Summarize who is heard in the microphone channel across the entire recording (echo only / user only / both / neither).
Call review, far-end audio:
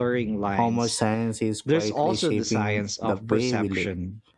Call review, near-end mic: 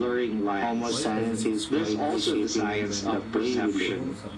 both